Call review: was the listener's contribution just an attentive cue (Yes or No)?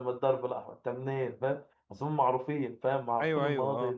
No